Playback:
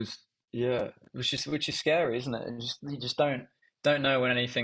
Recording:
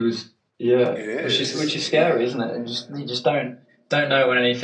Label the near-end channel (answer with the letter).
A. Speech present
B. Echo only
A